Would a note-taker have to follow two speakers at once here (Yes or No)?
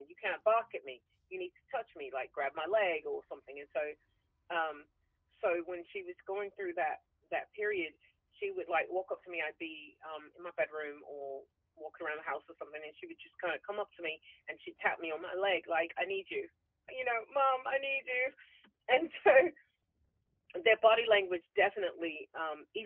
No